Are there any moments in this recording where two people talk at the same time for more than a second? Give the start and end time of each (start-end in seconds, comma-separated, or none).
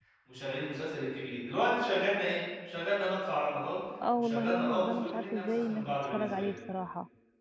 4.2-6.5